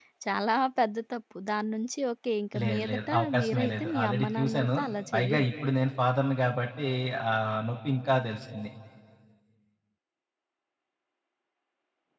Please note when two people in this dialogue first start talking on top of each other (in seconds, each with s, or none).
2.6 s